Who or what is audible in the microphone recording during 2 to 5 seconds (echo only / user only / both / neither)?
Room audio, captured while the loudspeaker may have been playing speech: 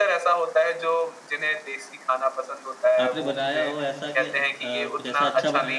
both